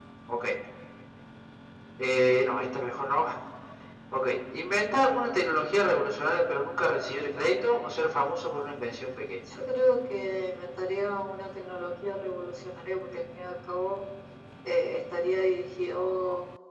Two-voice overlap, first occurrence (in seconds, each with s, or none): none